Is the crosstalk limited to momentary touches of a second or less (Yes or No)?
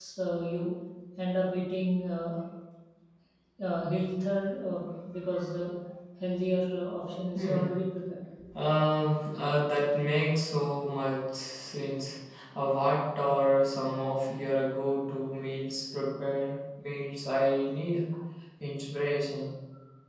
Yes